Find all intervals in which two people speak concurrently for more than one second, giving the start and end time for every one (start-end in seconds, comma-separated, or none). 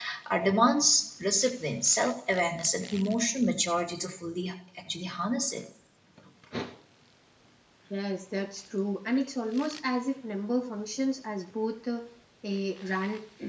none